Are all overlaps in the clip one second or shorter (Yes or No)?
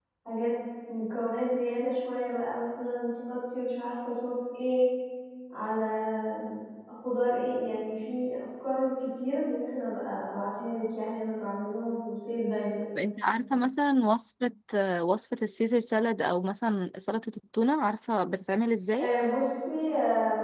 Yes